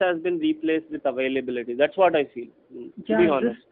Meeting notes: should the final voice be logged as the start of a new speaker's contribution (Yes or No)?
Yes